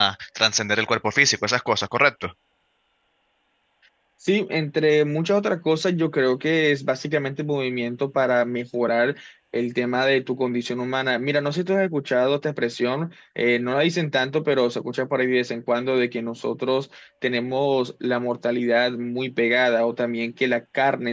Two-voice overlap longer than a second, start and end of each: none

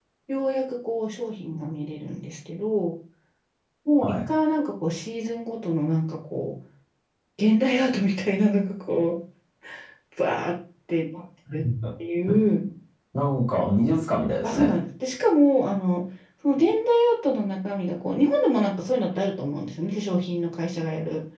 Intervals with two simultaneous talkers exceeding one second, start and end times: none

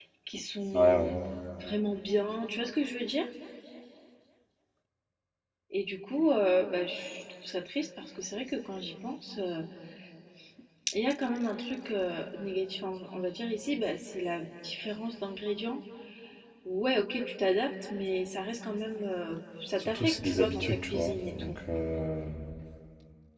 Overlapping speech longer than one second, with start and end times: 19.8-21.6

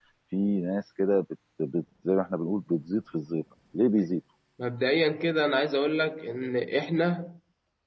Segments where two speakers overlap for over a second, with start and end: none

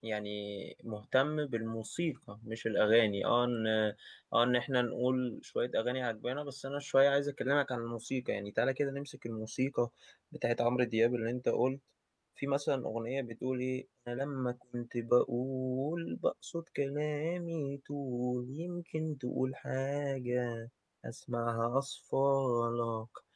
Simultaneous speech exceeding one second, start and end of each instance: none

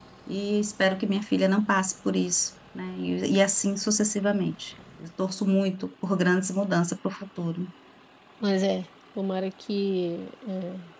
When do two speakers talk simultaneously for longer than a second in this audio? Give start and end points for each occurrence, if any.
none

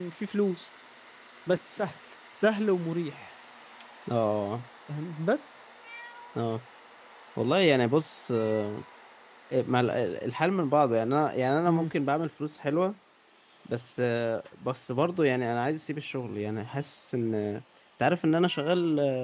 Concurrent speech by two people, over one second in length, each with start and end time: none

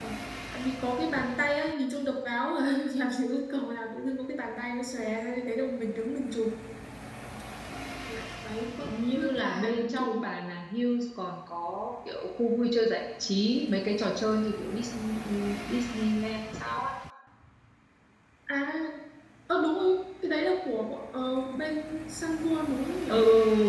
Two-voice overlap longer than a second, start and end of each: 8.8-10.2

